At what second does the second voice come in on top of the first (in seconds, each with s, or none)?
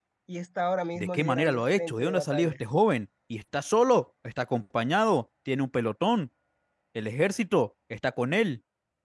1.0 s